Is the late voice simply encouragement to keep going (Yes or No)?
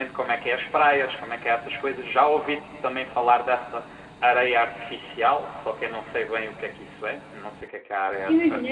No